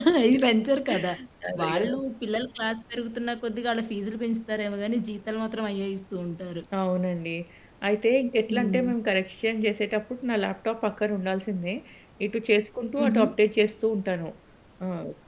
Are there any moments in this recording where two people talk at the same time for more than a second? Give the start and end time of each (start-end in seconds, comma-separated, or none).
none